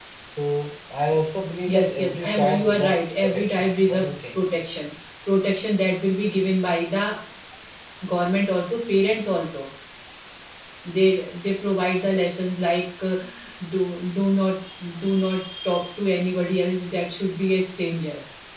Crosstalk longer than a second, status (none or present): present